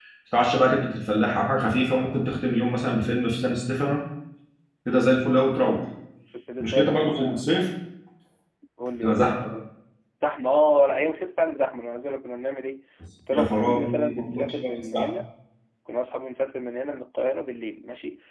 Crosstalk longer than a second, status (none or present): present